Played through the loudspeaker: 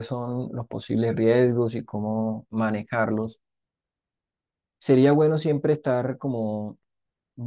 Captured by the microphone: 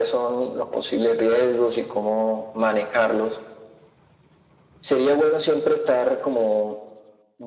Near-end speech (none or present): none